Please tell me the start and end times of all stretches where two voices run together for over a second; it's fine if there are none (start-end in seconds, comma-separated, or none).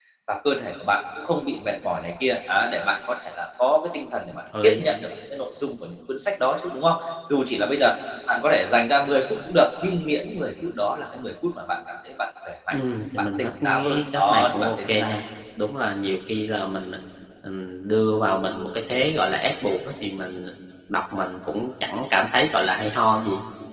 13.2-15.2